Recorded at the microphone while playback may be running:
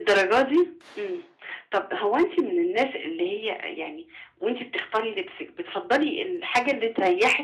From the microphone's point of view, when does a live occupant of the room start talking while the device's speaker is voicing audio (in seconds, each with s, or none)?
none